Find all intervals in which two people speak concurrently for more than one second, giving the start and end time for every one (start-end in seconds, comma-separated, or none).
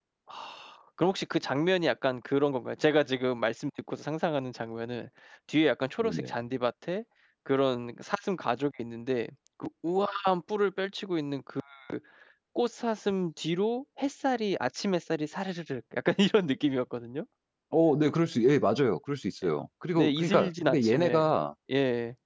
20.0-21.3